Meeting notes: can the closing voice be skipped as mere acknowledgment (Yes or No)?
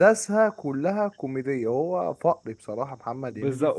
No